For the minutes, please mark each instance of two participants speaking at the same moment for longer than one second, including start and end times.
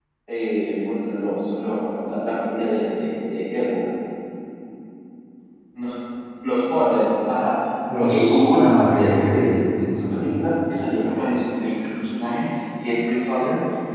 8.0-10.5

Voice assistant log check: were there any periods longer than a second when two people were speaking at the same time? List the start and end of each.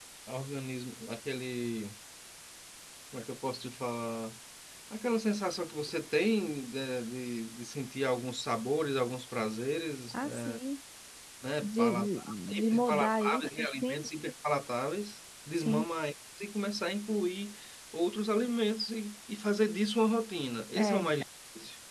11.6-14.0

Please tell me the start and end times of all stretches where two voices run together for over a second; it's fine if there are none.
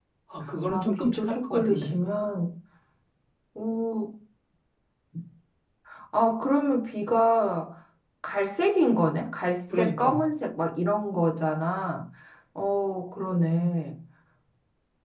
0.7-2.0

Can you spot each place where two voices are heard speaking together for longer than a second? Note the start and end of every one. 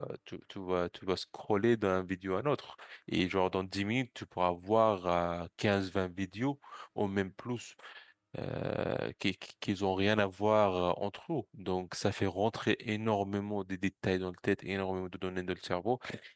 none

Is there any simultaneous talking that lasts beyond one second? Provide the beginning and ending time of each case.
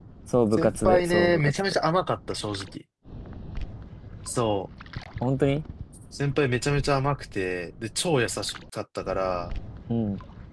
0.5-1.8

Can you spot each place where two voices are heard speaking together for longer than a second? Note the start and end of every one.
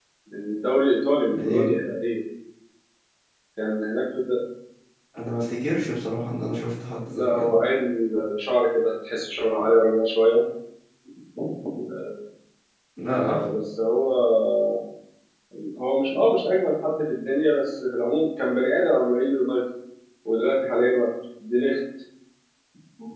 none

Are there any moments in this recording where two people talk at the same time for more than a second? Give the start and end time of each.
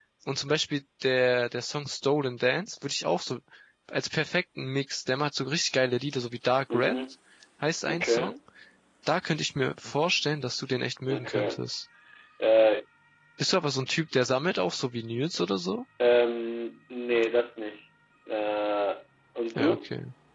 none

